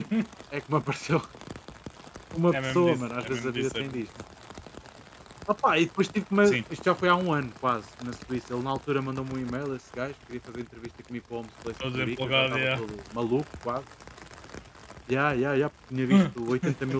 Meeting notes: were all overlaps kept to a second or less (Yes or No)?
No